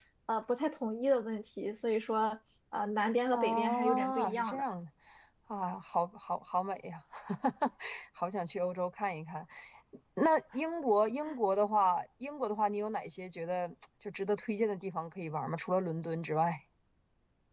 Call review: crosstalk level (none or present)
present